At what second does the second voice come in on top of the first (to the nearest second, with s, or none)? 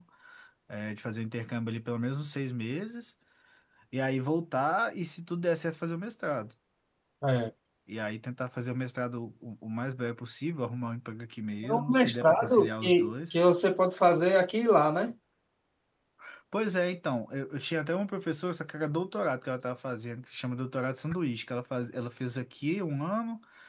12 s